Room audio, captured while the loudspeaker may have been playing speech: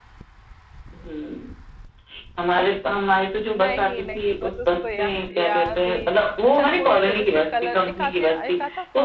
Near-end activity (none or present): present